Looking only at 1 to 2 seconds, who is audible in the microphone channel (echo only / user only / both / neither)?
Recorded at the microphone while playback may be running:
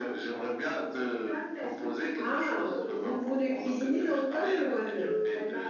echo only